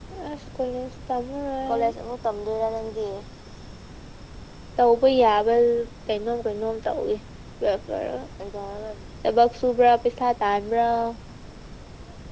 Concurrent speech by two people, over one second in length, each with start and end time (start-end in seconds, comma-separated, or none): none